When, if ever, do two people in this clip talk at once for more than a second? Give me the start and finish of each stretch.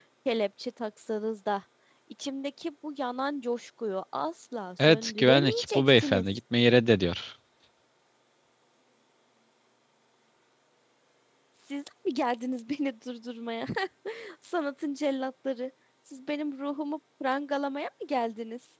4.9-6.2

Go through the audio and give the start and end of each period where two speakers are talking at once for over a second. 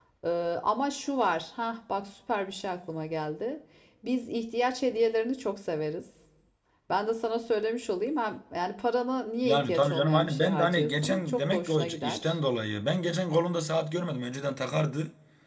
9.4-12.4

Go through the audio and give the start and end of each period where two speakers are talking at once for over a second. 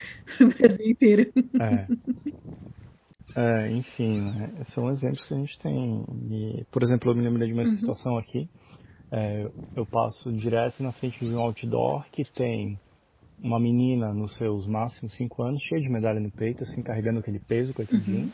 none

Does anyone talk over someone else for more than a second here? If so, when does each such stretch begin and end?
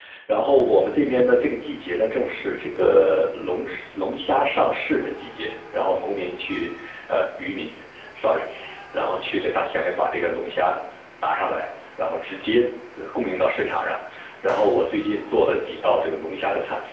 none

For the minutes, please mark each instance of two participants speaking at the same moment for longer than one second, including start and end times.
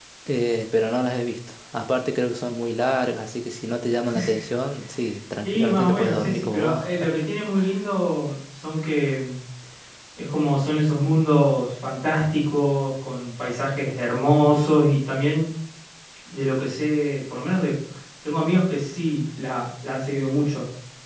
5.5-6.8

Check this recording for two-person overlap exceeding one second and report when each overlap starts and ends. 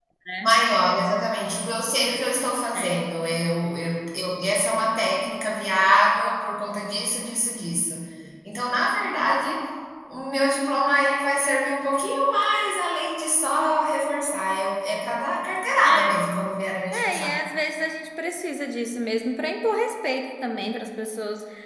none

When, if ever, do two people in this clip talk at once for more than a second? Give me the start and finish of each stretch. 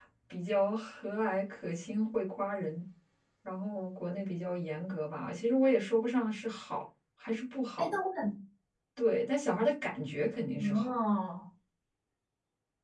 none

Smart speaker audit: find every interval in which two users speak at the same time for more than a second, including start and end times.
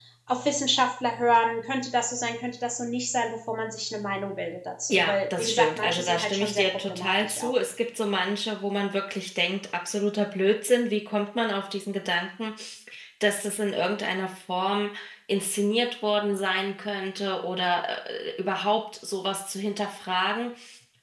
4.9-7.5

